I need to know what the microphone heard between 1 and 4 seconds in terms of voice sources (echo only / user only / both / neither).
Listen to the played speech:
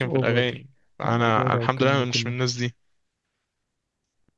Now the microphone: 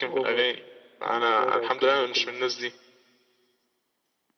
echo only